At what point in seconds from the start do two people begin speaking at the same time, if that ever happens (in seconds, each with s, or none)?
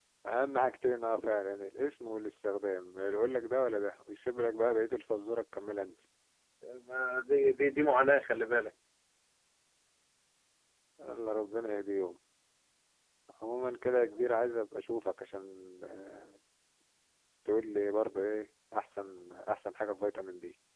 none